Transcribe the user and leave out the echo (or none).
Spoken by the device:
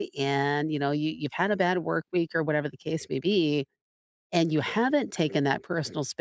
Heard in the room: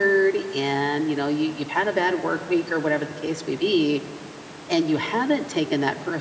none